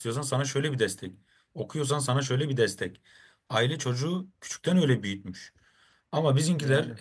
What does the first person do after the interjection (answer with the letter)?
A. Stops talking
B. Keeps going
B